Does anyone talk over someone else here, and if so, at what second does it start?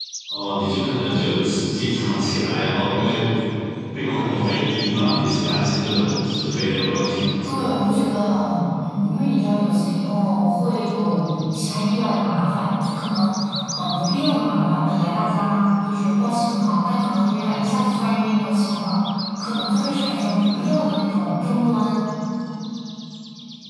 none

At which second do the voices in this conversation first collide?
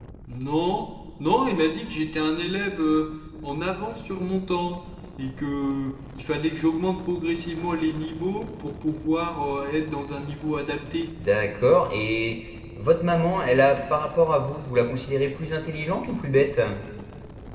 none

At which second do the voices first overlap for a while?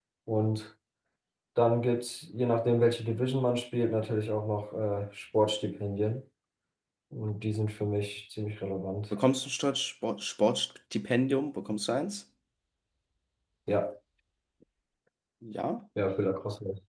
none

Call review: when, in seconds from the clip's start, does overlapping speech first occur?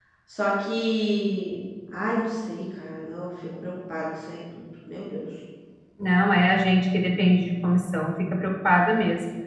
none

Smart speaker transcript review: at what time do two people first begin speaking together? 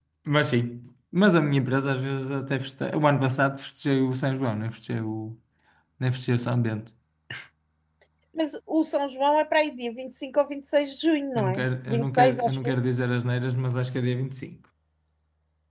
11.3 s

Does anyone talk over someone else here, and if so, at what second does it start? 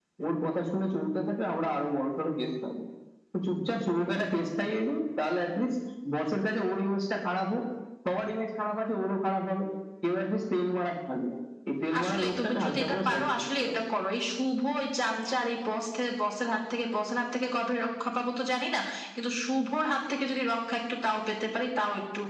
11.9 s

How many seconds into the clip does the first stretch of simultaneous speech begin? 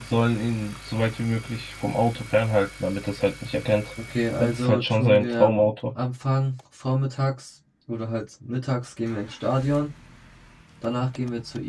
4.4 s

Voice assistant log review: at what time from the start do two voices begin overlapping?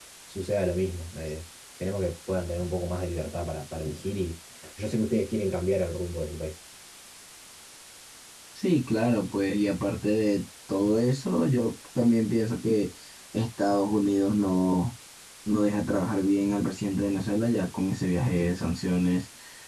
none

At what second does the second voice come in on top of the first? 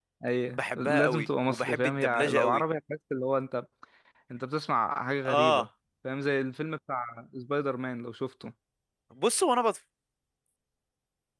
0.5 s

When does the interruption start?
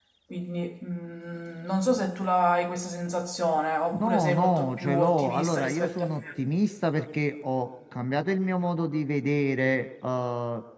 3.9 s

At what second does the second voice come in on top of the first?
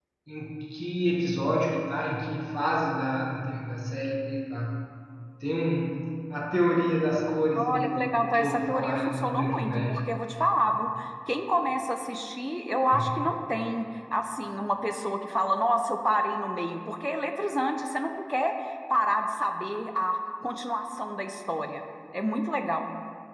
7.5 s

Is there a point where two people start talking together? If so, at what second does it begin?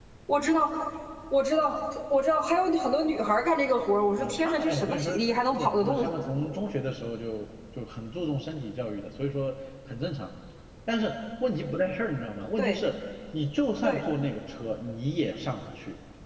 4.2 s

